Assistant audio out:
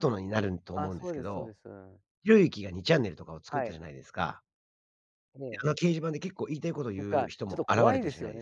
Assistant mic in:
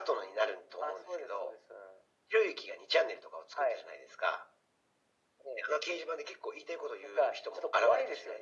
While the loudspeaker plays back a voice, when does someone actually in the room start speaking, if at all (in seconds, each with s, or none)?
none